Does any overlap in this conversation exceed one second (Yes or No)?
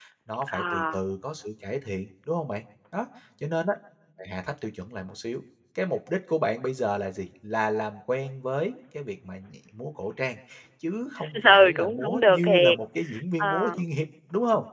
Yes